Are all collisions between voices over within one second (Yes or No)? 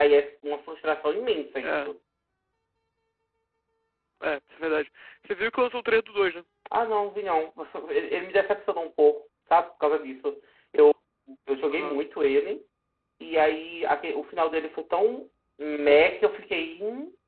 Yes